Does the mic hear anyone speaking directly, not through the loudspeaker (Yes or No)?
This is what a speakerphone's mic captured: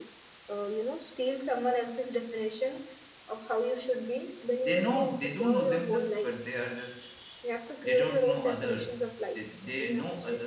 Yes